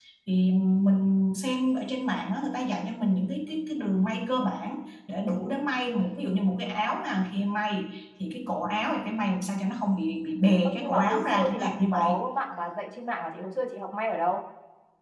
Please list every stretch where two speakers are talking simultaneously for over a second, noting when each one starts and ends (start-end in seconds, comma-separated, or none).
10.6-12.2